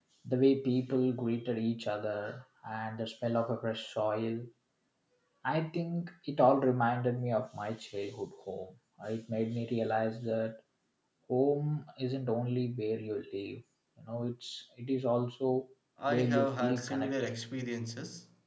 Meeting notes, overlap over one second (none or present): present